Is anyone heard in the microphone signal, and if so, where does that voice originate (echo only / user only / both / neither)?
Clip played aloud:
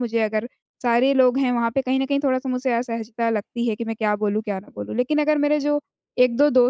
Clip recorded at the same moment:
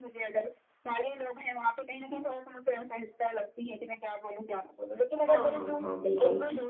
both